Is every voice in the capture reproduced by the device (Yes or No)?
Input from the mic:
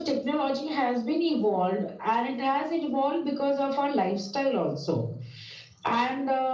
Yes